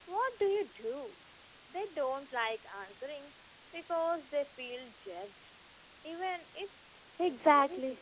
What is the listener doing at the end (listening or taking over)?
taking over